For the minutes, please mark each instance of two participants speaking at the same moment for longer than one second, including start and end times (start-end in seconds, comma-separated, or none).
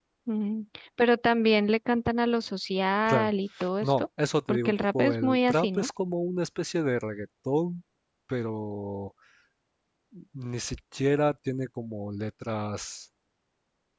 4.5-5.9